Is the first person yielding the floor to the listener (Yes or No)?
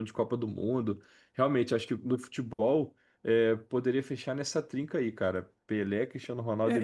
Yes